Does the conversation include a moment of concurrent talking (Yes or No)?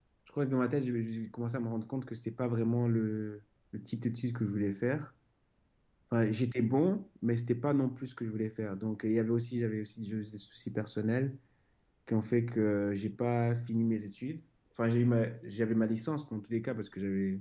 No